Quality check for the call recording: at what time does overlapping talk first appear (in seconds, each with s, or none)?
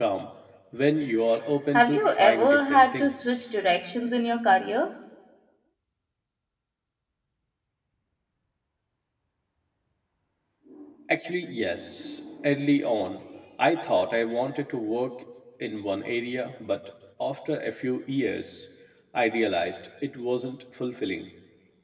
1.7 s